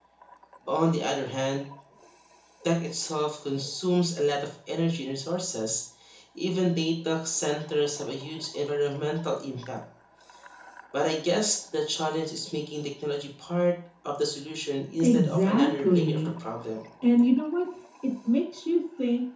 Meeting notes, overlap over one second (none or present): present